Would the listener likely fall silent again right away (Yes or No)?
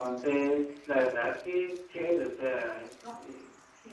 No